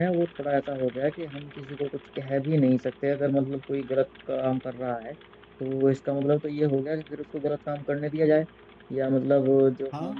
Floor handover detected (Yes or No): No